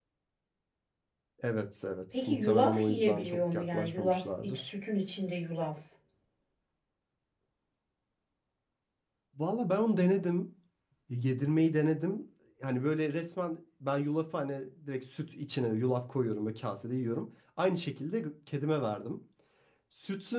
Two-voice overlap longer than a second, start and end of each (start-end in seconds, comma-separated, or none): 2.1-4.7